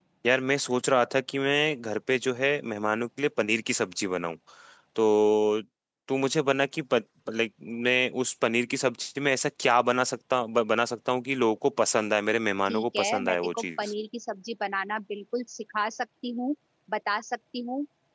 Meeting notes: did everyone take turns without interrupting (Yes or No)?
No